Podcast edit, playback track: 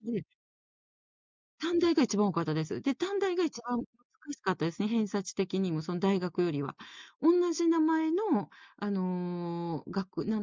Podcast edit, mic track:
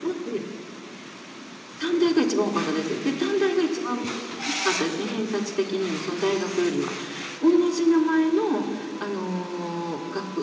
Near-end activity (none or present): none